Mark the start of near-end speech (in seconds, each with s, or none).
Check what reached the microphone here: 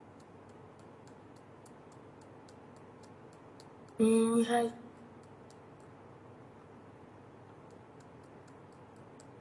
4.0 s